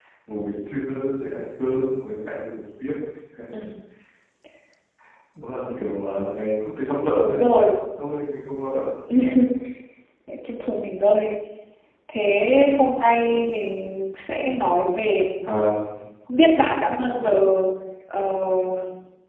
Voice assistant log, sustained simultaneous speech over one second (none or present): none